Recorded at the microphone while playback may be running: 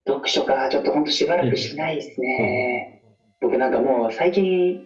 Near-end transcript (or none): ん。うん。はい。